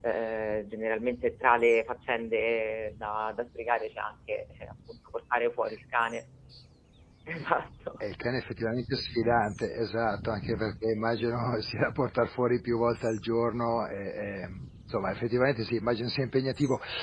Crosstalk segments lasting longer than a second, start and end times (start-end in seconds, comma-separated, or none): none